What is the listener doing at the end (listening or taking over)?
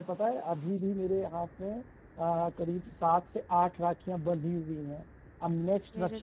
listening